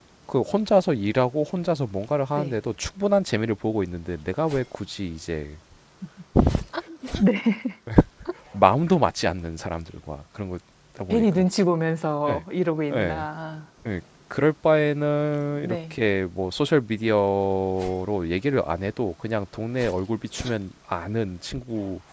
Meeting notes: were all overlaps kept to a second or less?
Yes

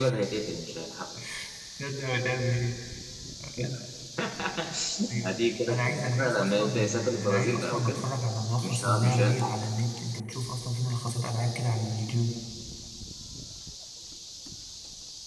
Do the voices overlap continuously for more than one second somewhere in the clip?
Yes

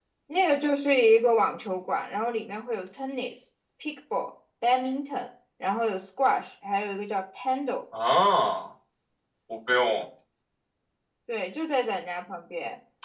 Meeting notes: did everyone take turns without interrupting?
Yes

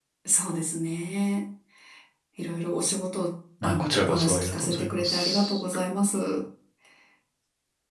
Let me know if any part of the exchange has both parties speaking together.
Yes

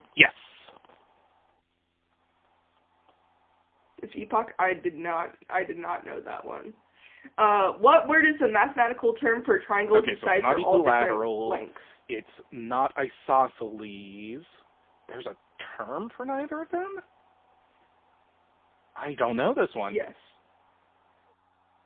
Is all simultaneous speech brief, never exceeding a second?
No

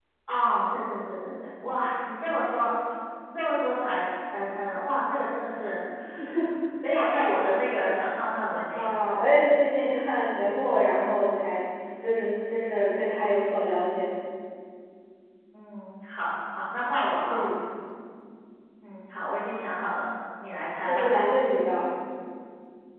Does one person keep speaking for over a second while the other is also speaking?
No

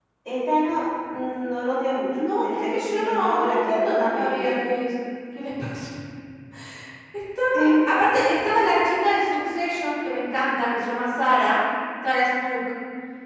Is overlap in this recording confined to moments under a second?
No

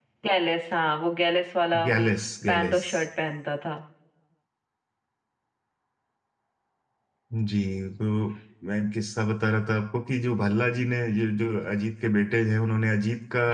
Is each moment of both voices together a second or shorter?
Yes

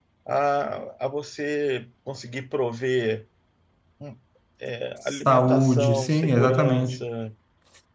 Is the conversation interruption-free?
No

